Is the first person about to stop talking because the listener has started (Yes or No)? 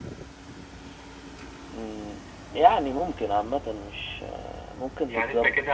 Yes